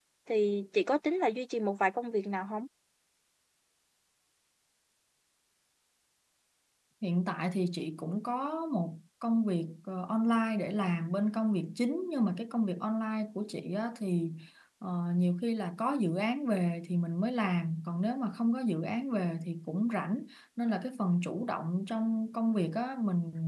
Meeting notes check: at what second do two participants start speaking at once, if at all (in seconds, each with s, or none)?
none